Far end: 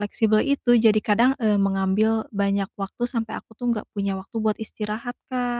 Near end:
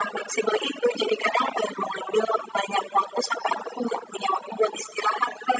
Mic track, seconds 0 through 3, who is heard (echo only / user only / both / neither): echo only